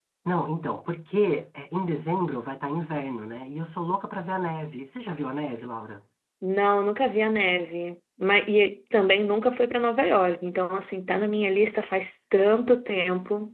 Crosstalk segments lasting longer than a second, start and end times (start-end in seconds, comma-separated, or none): none